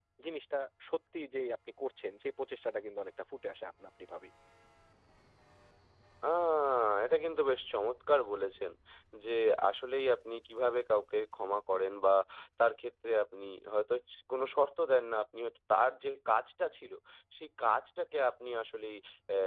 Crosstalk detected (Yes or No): No